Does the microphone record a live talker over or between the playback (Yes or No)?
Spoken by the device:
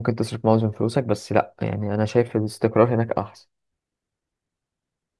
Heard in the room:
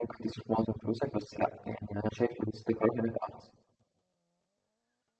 No